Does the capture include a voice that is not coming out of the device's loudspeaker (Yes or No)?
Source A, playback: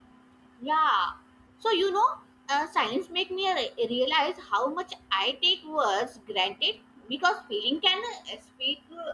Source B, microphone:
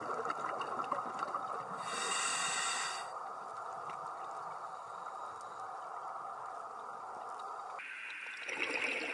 No